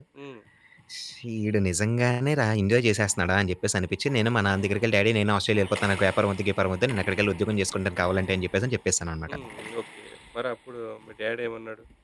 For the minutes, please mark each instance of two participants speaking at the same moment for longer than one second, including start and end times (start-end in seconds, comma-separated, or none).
none